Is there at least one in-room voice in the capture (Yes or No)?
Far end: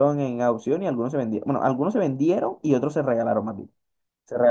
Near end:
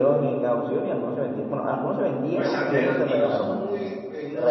Yes